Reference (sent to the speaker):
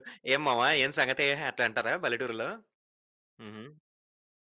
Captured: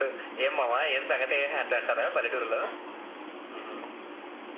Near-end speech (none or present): none